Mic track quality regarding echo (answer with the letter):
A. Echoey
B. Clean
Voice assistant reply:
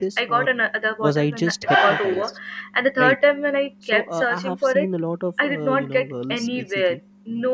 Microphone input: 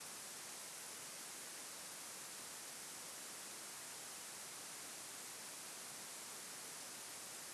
B